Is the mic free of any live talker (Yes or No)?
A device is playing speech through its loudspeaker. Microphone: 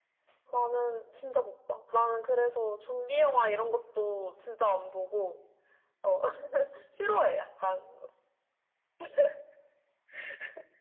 Yes